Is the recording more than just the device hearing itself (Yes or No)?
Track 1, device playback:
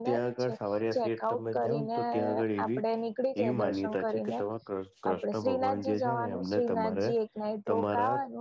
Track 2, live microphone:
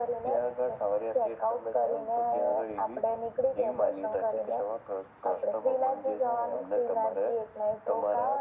No